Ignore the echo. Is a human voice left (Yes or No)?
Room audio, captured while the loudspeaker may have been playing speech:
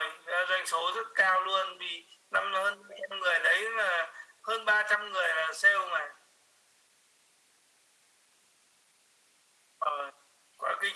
No